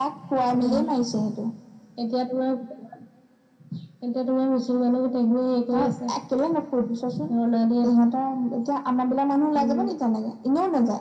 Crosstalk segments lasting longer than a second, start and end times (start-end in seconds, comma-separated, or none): none